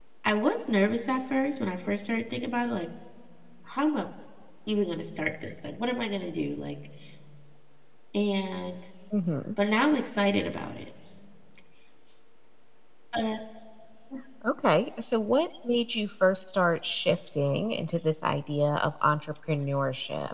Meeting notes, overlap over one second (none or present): none